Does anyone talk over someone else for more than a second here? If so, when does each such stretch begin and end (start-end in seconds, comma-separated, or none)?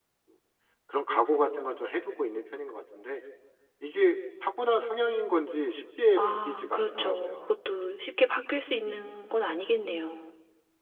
6.2-7.4